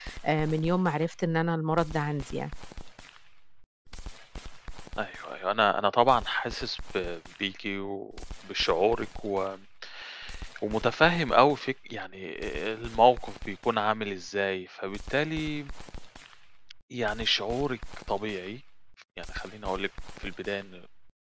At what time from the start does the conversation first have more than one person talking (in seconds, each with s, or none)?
none